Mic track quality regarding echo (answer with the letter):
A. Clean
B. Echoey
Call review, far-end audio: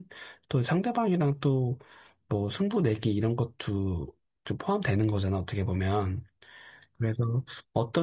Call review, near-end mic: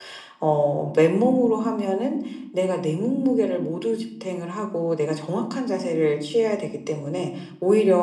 A